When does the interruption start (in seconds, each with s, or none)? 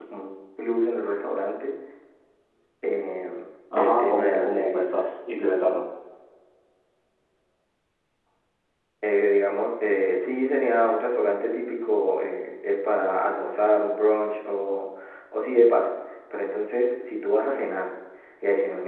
3.8 s